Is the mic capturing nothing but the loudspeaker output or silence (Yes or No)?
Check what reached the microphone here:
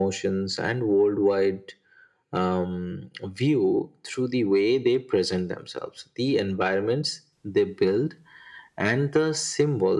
Yes